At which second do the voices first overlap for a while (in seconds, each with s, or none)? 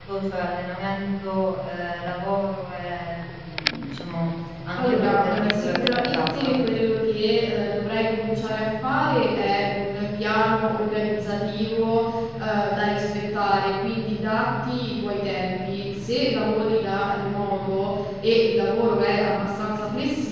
4.8 s